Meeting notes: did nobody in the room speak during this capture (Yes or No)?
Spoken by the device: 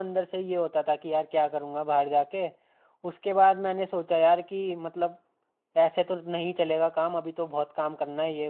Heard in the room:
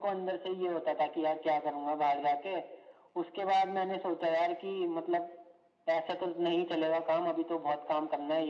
Yes